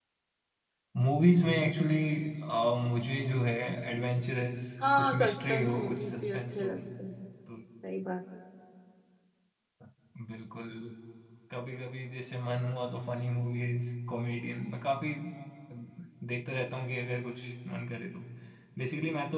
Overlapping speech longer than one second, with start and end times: 5.0-6.7

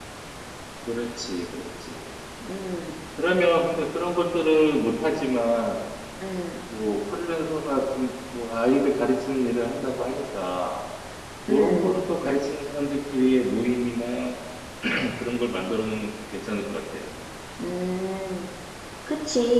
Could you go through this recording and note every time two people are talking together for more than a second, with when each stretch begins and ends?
none

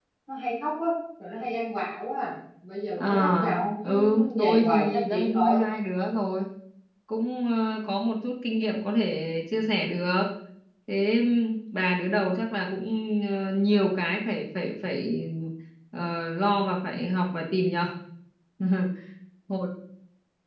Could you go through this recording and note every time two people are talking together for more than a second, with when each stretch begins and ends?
3.0-5.7

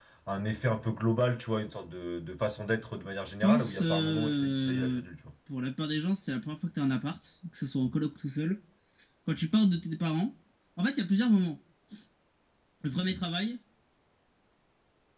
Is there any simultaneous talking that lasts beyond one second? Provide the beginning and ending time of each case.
3.2-5.0

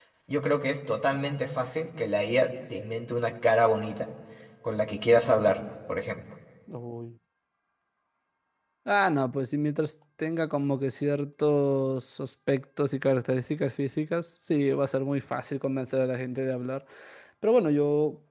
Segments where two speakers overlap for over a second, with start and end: none

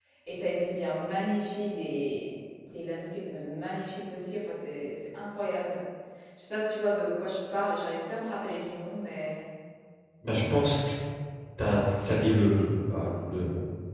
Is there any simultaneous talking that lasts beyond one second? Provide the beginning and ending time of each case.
none

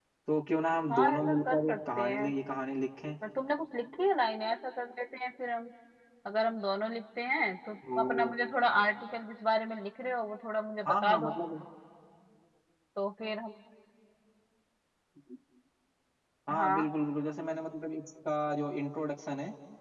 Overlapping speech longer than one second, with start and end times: 0.9-2.3

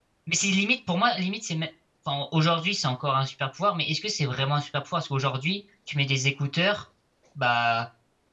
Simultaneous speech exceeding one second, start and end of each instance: none

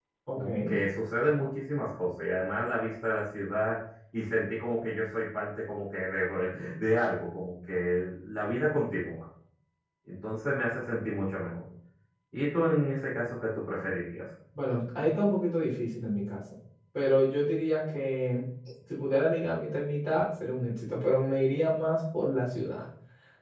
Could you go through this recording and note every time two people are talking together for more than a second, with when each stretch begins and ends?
none

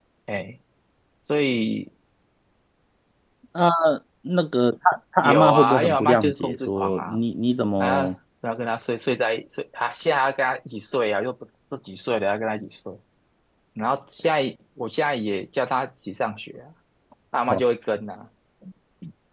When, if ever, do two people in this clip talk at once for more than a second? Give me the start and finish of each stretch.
5.2-7.2

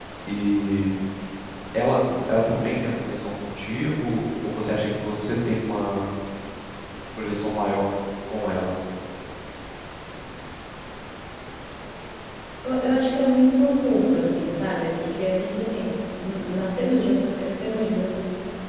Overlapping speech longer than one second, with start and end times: none

